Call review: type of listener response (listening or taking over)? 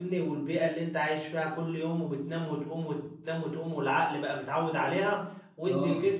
listening